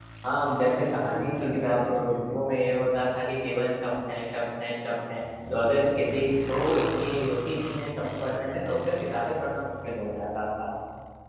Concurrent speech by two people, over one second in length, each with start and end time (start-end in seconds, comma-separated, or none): 0.6-2.4